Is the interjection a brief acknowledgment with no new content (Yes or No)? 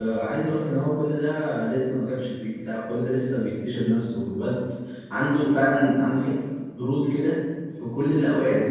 Yes